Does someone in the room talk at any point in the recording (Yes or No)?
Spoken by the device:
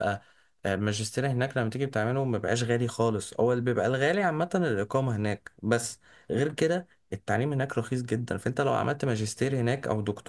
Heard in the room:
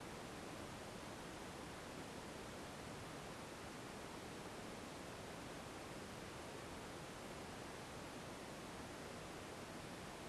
No